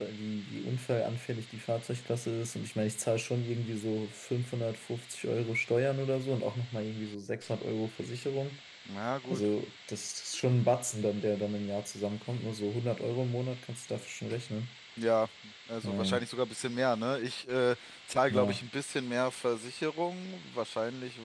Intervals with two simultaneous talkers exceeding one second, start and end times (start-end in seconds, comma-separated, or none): none